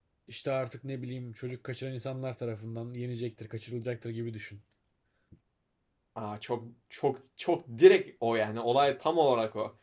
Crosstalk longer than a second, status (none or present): none